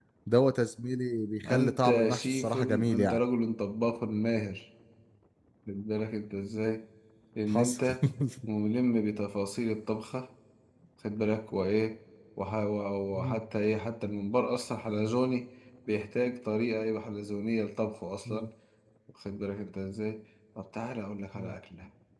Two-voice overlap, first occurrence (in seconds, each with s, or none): 1.5 s